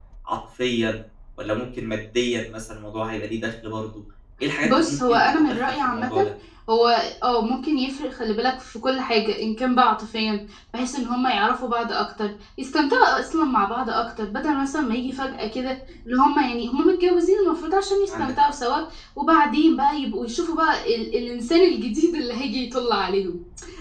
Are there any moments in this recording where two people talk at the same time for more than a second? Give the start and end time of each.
4.6-6.1

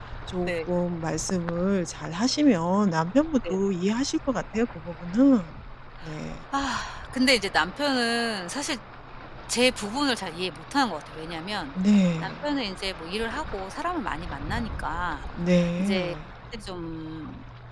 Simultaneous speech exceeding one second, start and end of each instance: none

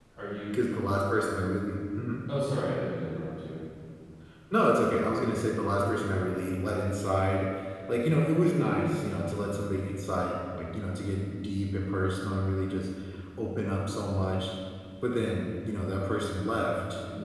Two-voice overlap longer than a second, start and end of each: none

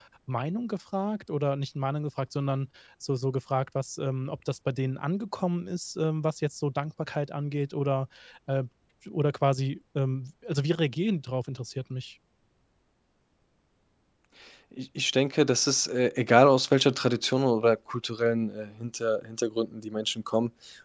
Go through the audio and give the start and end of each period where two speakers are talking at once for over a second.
none

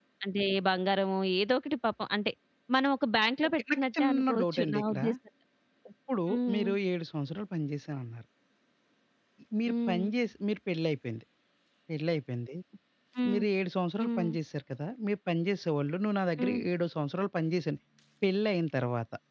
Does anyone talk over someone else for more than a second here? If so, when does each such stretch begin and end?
3.8-5.0

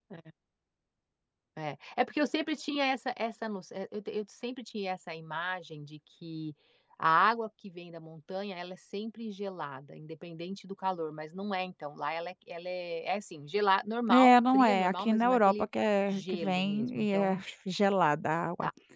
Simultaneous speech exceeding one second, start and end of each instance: 14.1-15.7, 16.1-17.4

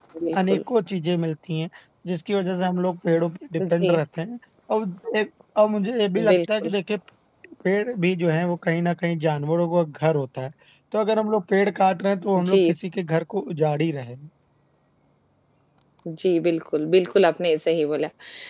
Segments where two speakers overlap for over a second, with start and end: none

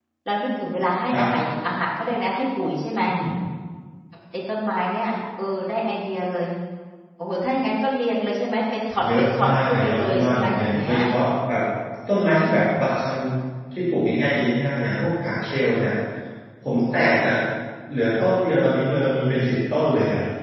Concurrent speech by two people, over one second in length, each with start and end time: 9.2-10.9

